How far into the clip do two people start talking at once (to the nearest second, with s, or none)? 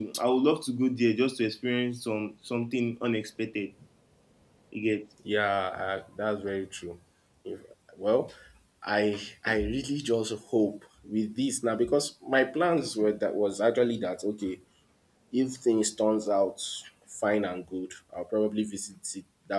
none